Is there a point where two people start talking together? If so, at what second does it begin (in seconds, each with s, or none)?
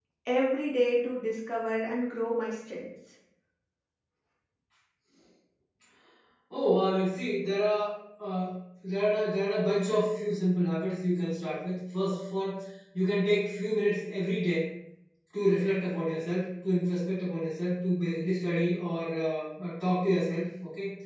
none